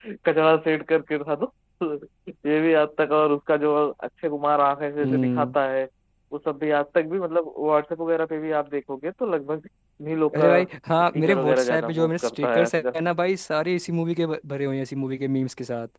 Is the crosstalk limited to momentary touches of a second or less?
No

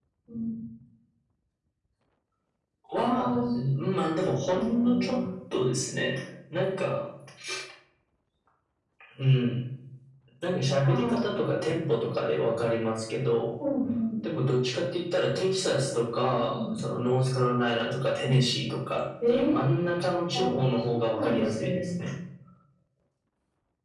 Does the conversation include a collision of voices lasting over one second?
Yes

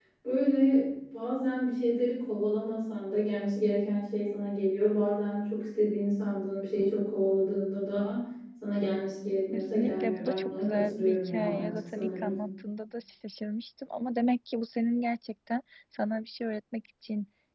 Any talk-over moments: Yes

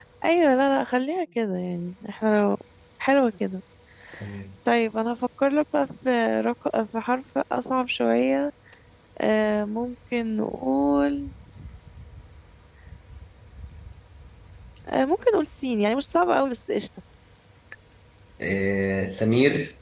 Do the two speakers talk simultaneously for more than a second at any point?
No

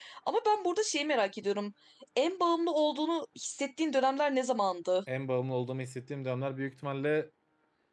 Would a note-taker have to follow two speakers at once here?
No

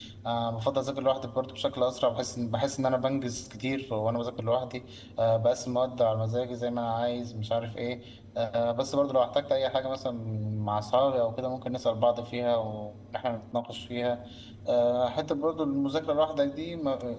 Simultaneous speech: No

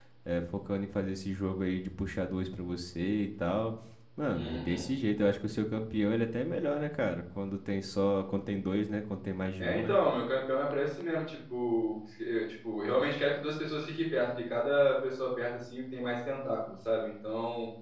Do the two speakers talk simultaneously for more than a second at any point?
No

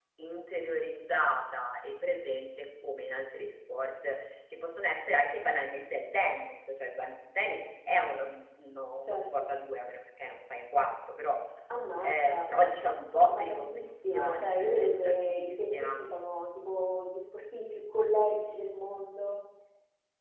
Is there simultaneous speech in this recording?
Yes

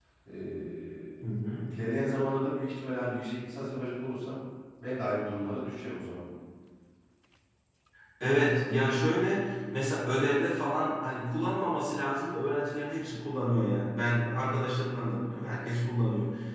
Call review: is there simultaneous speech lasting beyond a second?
No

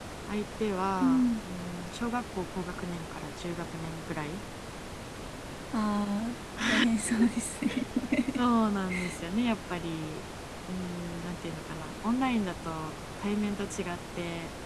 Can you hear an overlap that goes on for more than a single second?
No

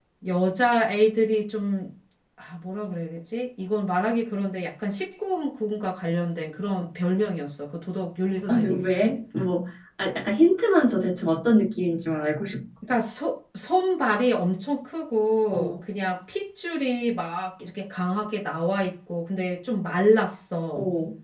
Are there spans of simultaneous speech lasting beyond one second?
No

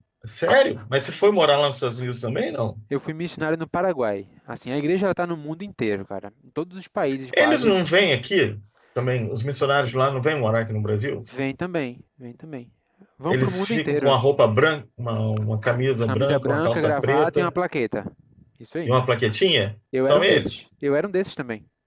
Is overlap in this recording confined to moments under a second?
No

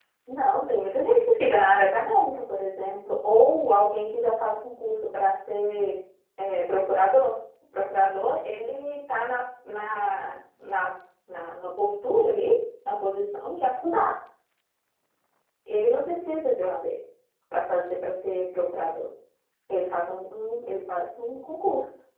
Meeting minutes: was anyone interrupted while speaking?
No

